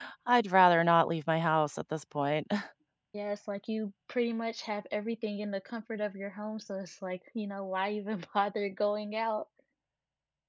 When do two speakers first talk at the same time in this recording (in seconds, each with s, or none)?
none